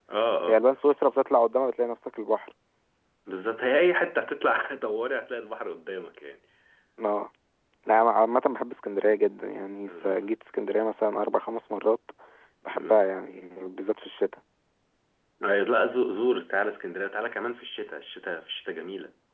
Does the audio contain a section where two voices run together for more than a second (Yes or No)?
No